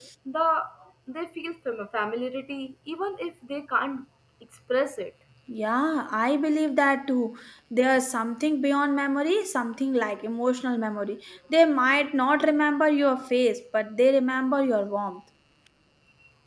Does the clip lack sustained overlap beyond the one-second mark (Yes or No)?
Yes